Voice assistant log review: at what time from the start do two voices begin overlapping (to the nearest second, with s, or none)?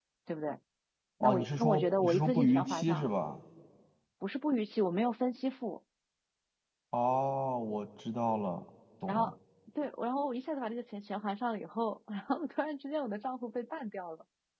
1 s